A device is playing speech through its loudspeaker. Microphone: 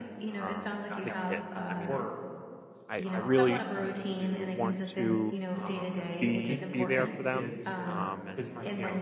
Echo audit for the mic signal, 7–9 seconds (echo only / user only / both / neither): both